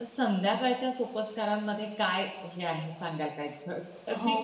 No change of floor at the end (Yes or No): No